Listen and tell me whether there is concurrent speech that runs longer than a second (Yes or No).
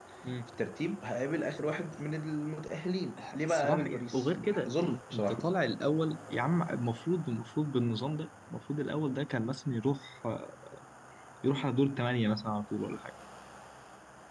Yes